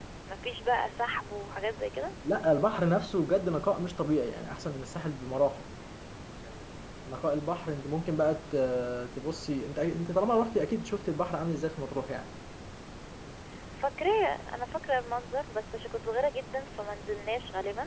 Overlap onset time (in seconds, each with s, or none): none